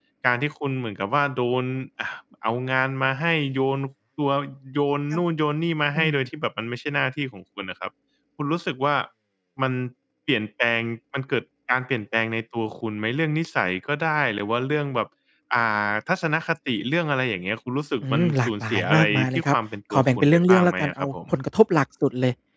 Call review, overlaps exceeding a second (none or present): present